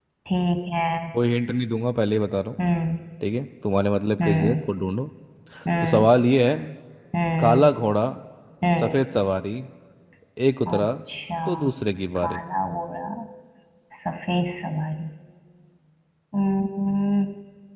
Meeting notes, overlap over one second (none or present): none